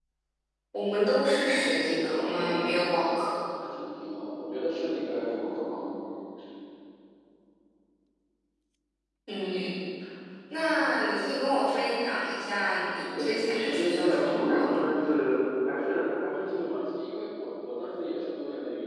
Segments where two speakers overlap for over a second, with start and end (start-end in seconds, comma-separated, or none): 1.5-3.4, 13.2-14.9